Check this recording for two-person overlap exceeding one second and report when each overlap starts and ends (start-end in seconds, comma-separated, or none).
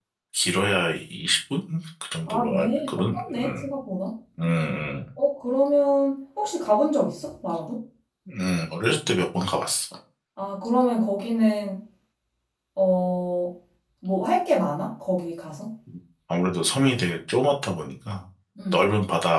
2.3-3.7